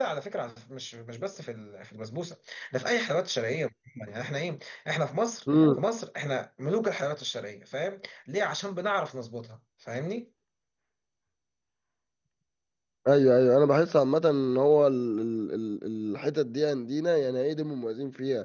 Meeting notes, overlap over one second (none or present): none